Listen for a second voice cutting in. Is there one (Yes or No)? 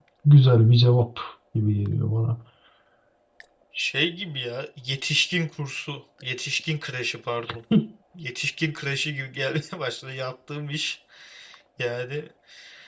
No